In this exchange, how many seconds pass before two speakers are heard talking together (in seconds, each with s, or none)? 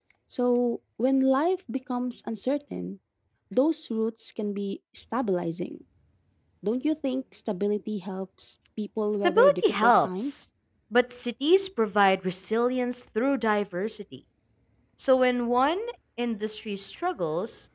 9.2 s